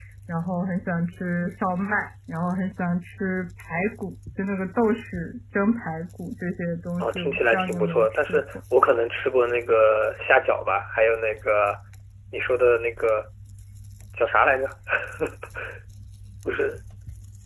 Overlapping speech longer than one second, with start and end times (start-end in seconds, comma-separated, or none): 7.0-8.4